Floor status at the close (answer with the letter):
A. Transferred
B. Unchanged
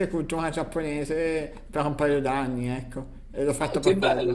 A